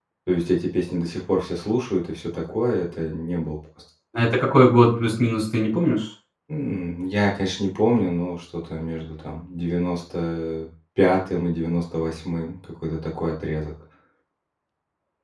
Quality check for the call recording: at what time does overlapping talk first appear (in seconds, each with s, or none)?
none